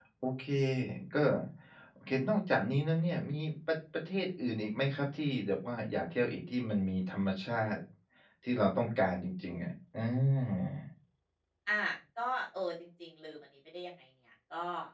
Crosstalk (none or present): none